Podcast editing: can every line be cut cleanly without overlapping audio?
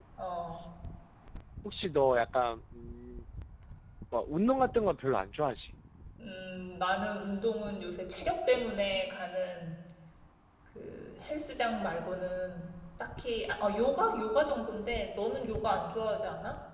Yes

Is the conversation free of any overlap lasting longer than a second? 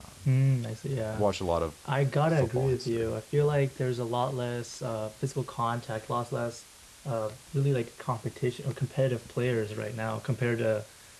No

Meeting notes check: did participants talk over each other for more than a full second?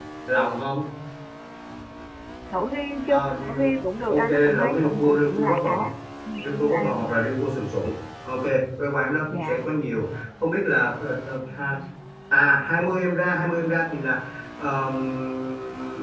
Yes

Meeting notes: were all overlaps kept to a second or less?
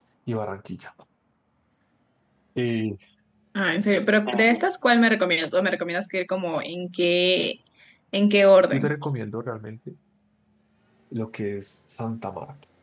Yes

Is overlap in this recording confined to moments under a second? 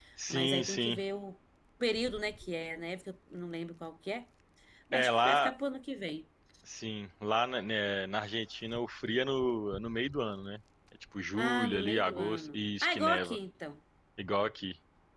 No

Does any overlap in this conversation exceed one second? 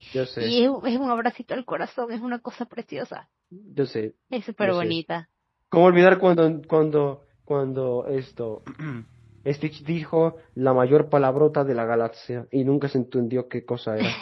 No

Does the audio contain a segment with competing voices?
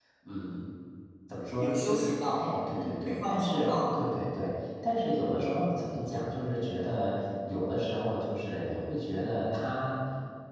Yes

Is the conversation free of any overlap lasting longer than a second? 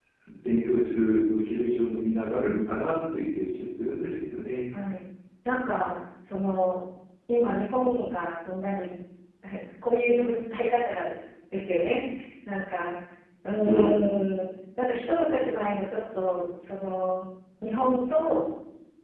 Yes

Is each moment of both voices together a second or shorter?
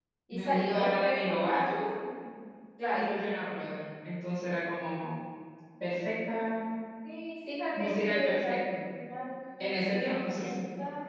No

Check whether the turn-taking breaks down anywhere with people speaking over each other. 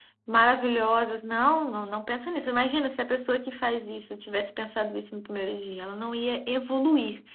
No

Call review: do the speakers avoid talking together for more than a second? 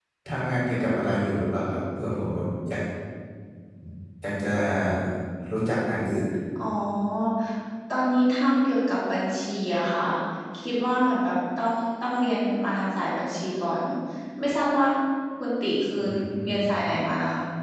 Yes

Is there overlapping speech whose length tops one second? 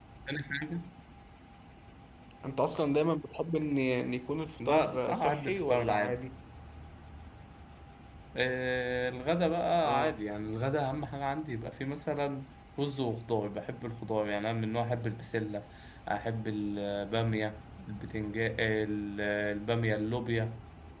Yes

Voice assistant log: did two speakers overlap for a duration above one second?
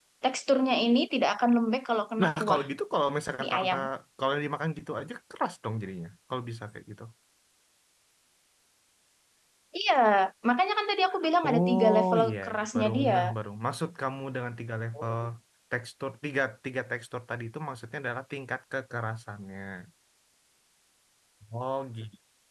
Yes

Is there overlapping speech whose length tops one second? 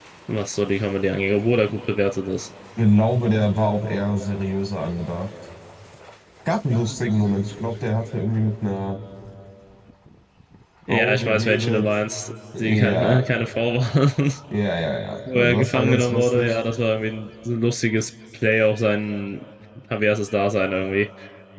Yes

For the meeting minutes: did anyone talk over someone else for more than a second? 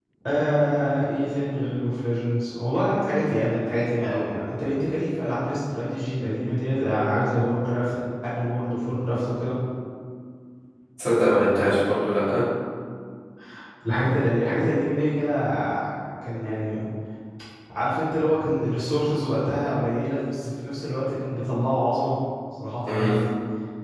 No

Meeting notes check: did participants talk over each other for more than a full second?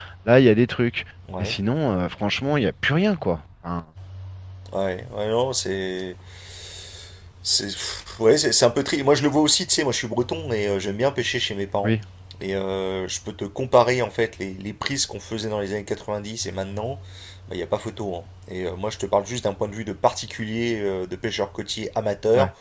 No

